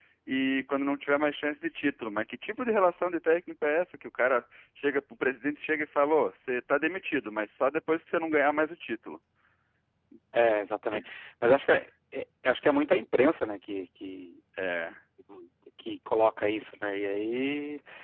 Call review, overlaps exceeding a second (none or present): none